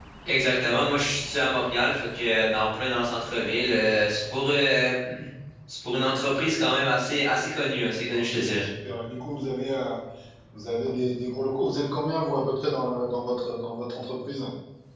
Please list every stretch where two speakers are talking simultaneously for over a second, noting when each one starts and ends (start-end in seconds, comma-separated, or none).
none